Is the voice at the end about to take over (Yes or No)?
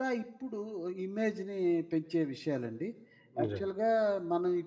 No